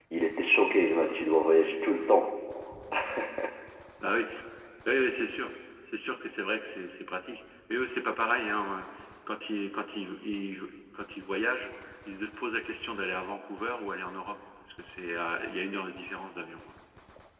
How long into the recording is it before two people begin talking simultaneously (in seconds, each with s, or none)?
none